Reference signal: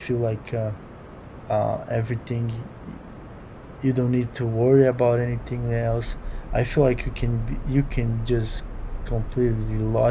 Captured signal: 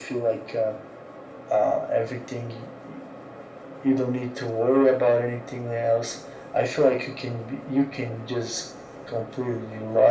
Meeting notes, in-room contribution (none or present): none